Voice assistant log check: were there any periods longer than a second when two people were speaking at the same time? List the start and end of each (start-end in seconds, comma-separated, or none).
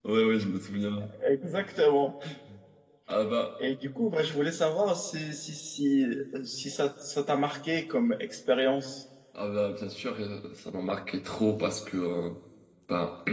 none